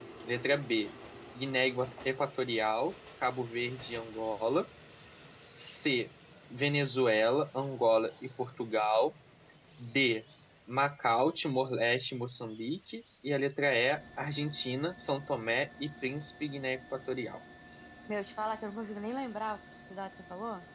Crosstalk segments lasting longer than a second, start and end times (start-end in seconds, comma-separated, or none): none